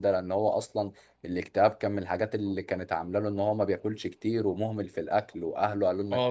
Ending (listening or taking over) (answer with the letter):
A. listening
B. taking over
B